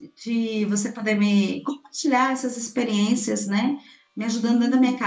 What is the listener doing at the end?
listening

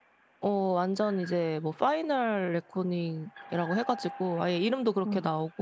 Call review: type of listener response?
listening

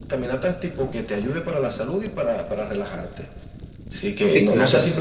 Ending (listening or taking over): listening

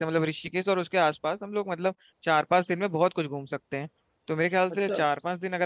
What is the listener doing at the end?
listening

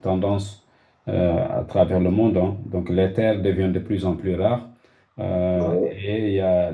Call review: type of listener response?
listening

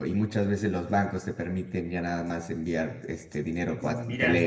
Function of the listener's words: taking over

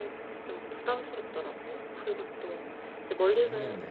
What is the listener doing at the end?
listening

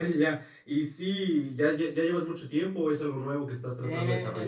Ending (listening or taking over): taking over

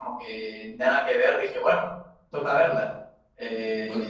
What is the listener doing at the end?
listening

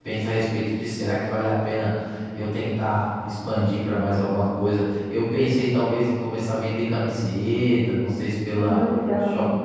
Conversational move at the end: listening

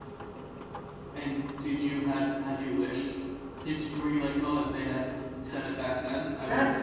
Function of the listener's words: taking over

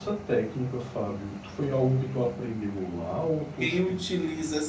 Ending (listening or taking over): taking over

